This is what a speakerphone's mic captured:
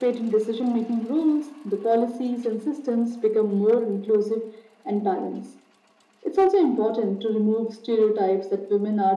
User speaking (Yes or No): No